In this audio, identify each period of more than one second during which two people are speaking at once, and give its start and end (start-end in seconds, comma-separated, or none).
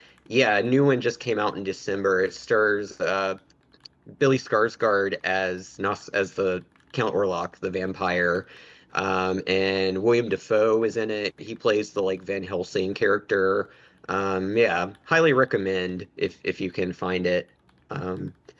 none